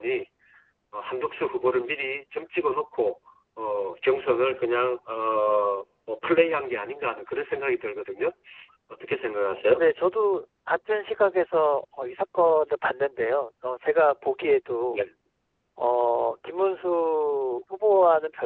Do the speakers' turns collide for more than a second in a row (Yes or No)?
No